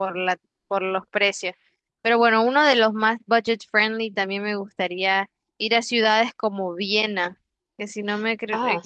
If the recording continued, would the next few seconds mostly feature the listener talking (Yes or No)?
No